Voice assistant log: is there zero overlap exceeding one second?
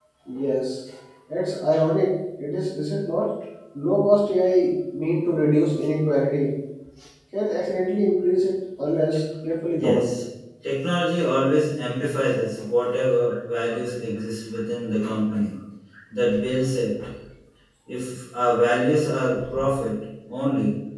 Yes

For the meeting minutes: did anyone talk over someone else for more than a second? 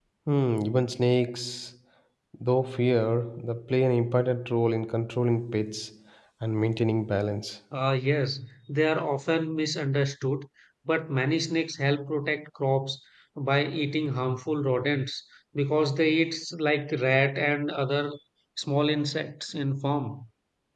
No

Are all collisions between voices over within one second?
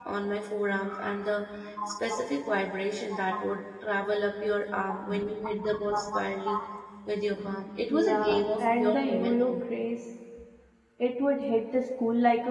No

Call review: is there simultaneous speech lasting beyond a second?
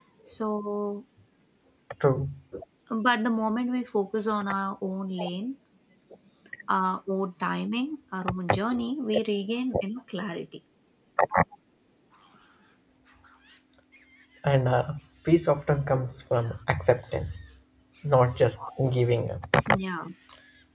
No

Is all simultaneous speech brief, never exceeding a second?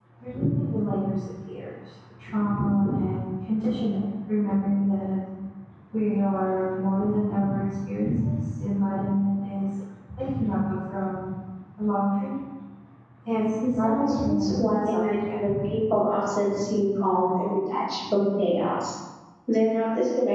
No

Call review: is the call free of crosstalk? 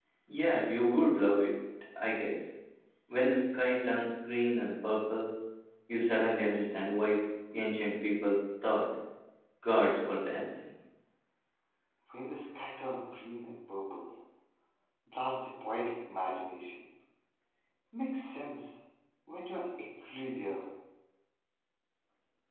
Yes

